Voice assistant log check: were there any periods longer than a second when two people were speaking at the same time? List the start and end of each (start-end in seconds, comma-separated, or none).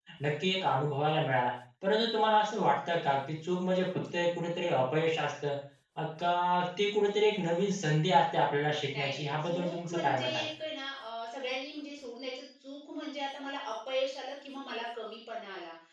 8.9-10.5